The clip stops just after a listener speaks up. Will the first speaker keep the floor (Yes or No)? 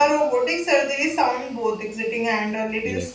Yes